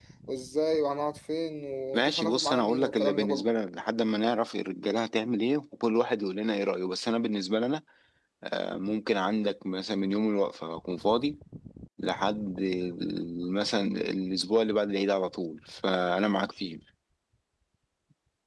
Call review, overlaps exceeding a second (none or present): present